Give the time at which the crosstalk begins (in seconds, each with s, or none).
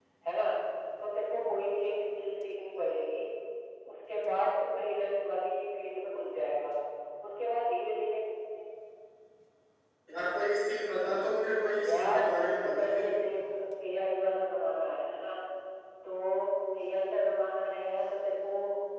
11.8 s